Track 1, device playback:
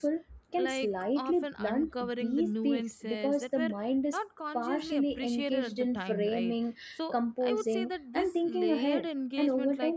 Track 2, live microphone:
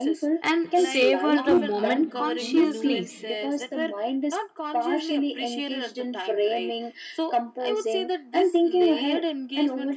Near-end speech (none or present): present